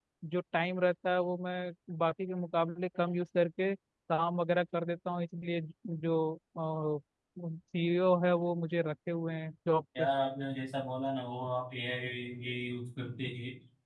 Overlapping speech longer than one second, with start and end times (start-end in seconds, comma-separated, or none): none